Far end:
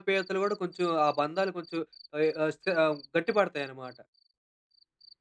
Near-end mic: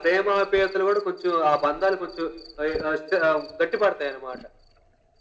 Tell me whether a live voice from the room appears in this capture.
No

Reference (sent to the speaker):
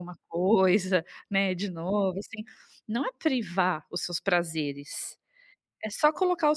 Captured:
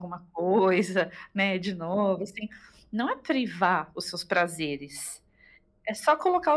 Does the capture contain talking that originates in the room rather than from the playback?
No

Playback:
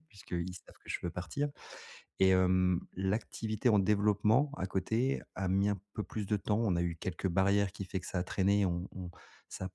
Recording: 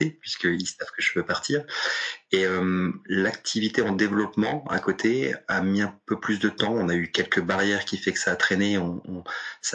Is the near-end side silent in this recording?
Yes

